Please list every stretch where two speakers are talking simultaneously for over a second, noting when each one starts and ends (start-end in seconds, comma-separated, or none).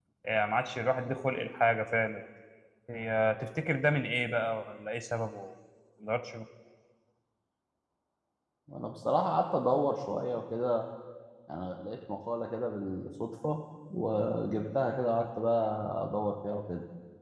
none